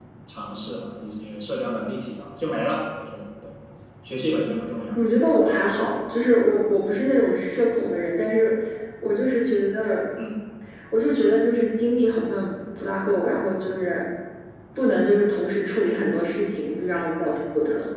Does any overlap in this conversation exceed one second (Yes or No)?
No